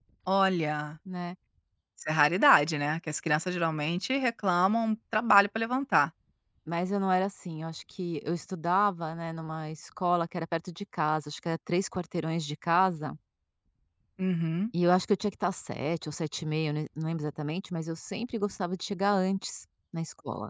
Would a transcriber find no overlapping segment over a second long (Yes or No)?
Yes